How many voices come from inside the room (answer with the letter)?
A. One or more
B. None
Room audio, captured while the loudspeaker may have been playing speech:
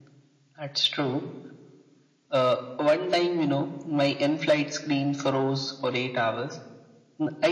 B